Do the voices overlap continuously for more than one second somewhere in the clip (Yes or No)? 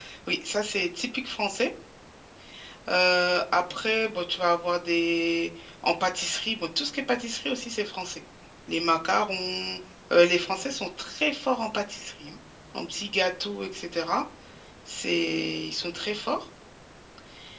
No